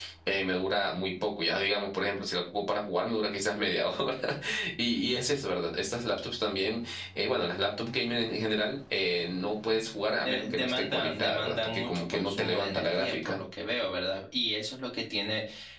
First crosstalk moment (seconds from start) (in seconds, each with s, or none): 10.2 s